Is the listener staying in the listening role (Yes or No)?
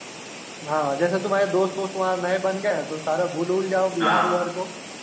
Yes